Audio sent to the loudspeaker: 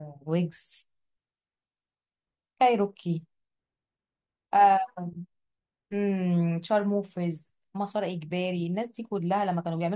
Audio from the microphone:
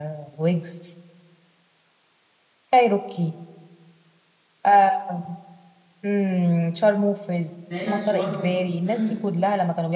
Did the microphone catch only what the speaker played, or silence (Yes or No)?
No